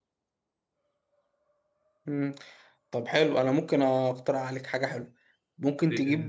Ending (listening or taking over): listening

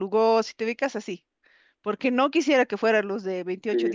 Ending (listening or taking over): listening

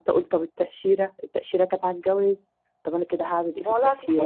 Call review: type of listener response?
taking over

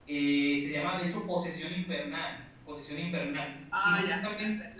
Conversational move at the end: taking over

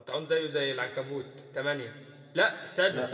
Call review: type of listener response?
listening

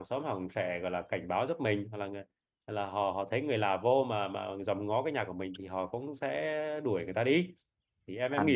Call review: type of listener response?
taking over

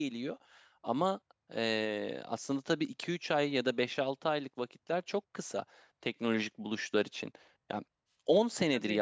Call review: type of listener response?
listening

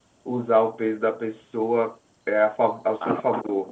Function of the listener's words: taking over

